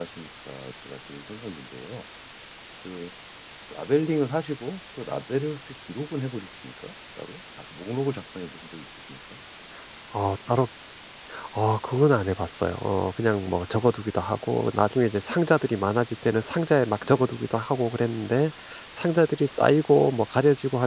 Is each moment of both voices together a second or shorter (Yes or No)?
Yes